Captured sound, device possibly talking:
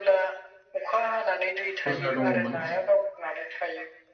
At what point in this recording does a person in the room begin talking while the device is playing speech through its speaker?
1.8 s

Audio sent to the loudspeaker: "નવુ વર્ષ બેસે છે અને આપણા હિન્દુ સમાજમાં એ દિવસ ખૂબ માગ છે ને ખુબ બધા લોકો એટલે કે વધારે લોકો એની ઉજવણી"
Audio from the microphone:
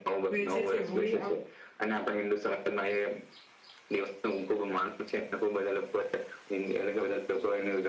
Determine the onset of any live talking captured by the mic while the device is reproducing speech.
0.3 s

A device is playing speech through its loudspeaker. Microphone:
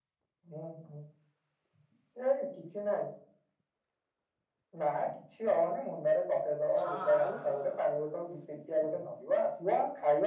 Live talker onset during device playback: 6.8 s

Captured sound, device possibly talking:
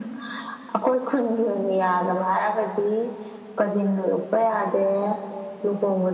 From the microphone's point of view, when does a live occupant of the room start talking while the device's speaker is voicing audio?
none

